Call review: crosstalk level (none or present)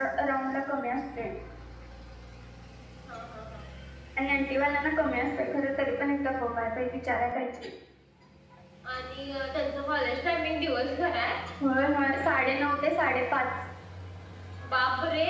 none